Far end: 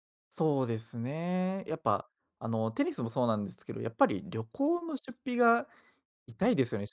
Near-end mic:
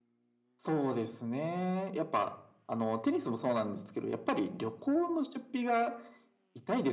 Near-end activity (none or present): none